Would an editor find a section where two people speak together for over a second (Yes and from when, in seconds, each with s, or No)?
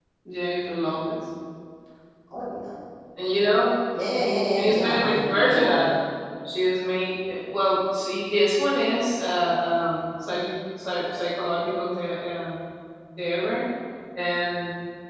Yes, from 4.3 s